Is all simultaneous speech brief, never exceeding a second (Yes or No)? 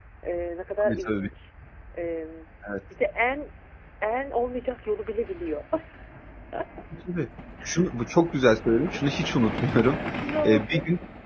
Yes